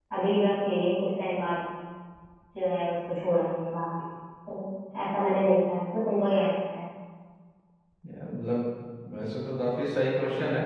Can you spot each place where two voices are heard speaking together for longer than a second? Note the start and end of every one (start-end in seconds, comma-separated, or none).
none